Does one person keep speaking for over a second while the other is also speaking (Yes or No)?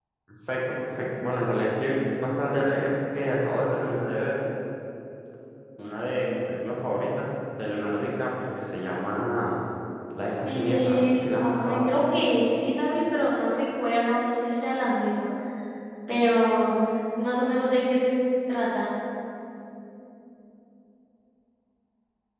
Yes